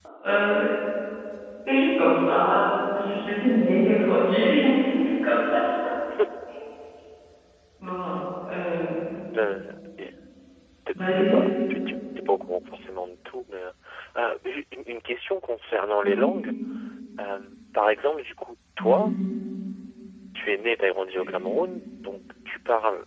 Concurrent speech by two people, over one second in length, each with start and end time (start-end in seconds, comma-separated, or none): none